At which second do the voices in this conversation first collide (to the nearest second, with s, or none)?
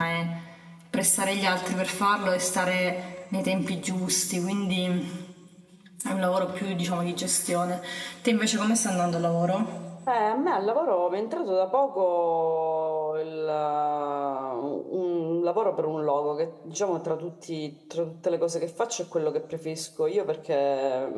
none